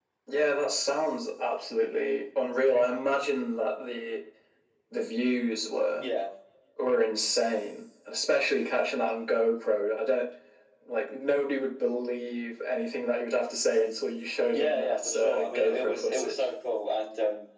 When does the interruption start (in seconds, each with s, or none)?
14.5 s